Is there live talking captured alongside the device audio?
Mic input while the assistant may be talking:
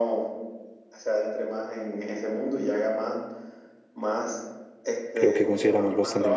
Yes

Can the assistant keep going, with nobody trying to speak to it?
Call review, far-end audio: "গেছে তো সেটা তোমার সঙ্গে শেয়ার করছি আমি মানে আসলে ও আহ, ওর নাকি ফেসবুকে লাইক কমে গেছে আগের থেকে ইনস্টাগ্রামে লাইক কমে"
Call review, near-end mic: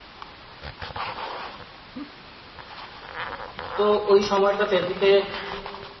No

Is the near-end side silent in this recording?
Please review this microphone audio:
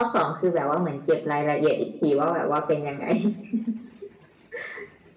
No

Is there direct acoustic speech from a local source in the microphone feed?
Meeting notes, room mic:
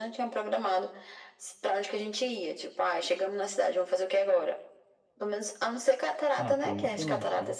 Yes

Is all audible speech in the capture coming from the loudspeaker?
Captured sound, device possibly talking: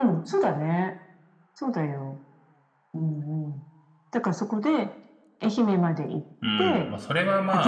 No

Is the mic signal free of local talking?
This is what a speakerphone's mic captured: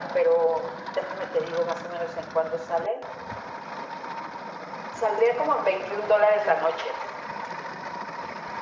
Yes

